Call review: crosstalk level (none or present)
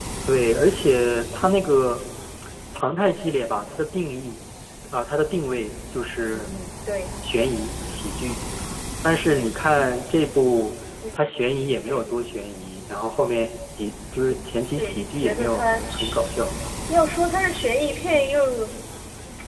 present